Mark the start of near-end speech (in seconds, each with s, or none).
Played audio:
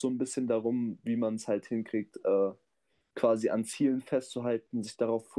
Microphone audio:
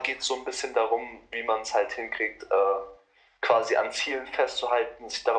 none